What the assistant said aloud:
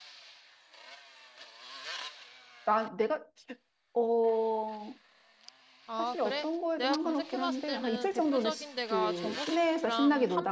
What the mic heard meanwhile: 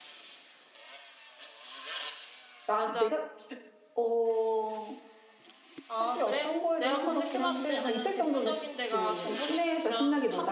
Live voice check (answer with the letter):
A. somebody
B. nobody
A